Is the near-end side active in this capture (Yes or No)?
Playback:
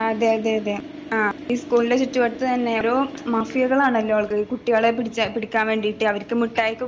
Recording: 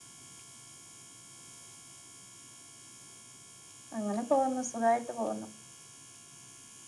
Yes